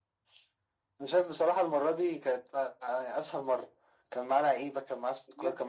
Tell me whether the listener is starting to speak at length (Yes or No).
Yes